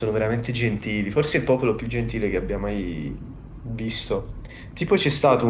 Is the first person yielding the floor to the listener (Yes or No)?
No